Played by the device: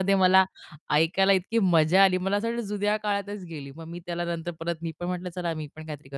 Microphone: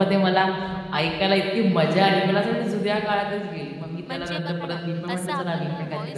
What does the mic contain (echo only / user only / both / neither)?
both